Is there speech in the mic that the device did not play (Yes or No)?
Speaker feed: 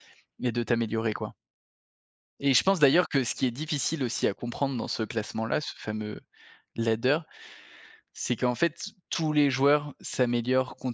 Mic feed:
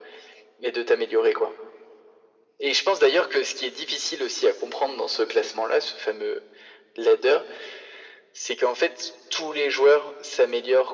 No